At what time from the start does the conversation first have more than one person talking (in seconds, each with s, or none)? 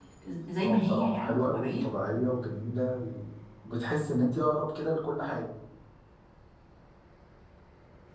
0.6 s